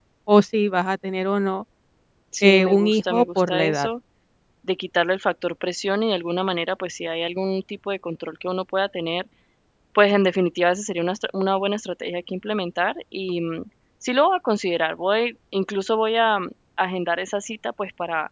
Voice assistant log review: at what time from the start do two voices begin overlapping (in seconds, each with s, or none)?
2.4 s